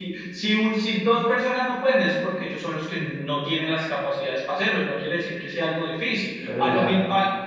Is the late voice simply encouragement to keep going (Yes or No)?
Yes